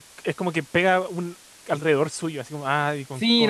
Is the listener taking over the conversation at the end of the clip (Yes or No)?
Yes